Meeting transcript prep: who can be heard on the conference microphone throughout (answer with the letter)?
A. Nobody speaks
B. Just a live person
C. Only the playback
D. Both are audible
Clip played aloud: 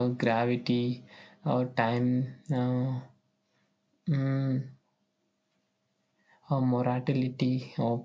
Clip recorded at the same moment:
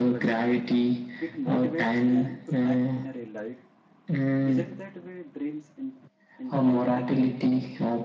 D